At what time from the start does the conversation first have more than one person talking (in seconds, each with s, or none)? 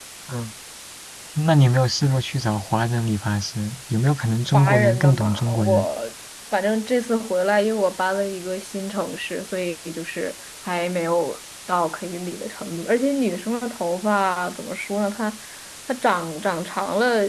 4.5 s